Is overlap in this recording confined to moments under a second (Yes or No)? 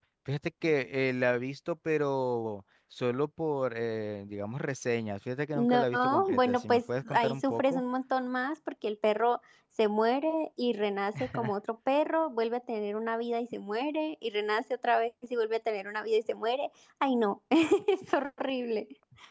No